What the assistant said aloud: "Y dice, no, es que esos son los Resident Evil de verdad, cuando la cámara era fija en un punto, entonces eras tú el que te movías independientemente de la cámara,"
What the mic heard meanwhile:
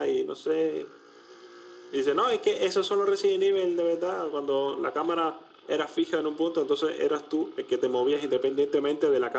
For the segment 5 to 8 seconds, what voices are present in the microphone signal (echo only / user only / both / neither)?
echo only